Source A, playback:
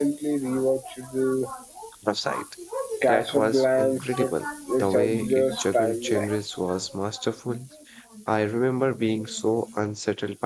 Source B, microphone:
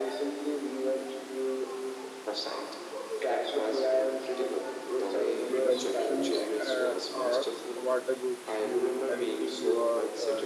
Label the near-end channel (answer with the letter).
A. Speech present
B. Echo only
A